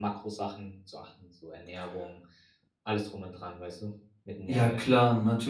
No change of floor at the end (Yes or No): No